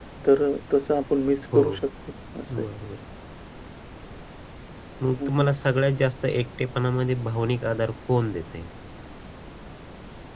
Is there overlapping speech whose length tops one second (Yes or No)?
No